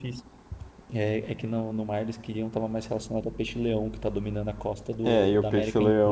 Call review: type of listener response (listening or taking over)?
taking over